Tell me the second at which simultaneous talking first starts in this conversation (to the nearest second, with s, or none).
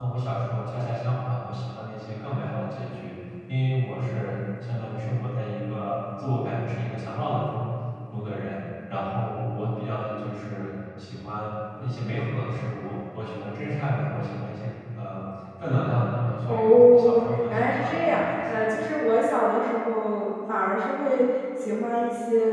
16 s